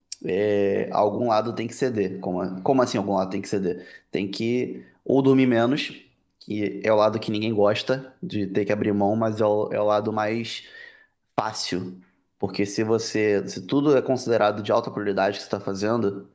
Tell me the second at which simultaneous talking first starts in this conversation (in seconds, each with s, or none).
none